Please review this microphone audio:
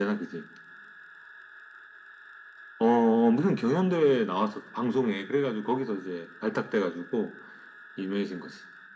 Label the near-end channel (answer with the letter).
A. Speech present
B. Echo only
B